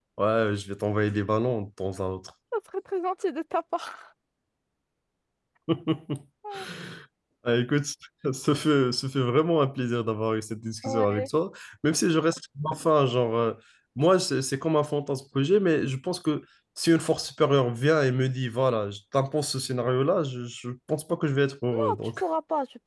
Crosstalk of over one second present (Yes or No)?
No